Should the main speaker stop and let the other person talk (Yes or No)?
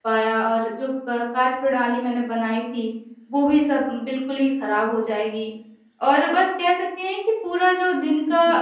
No